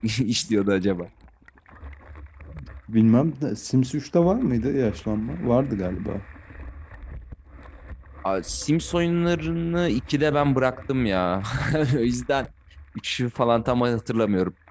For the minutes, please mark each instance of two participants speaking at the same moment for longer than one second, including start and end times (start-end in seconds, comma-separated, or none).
none